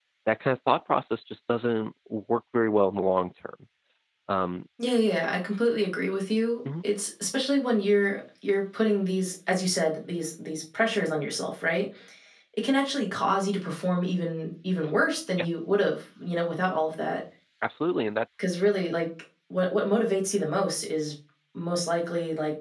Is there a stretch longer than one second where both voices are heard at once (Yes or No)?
No